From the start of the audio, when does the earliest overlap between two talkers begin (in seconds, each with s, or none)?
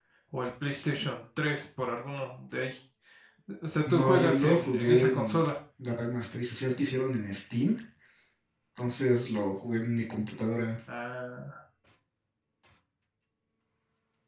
3.9 s